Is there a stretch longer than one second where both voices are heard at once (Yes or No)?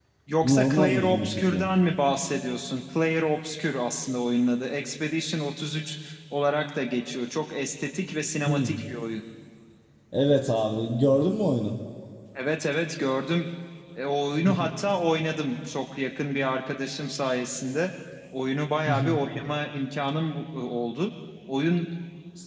Yes